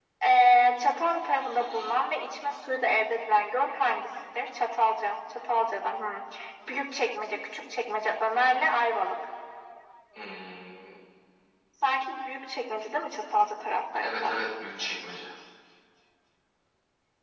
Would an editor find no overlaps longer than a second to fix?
Yes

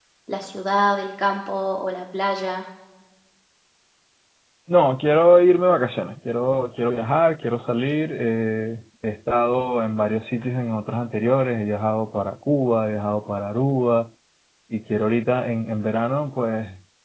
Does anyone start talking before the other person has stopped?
No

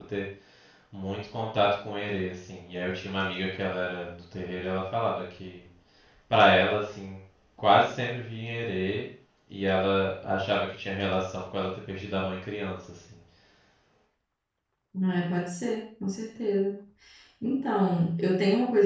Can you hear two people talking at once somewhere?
No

